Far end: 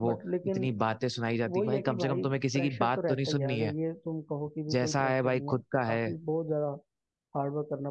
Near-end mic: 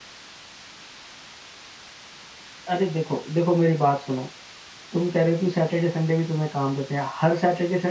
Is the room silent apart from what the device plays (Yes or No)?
No